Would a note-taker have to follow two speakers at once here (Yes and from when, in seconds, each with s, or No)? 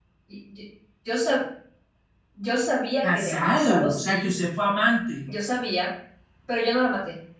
Yes, from 3.0 s